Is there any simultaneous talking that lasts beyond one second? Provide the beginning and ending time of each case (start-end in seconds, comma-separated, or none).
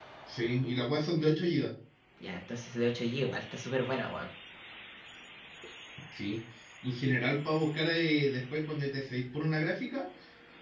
none